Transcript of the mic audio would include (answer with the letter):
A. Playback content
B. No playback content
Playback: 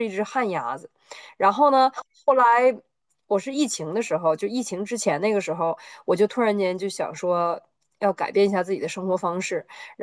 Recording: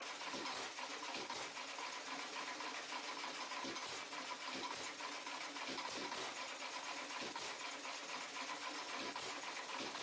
B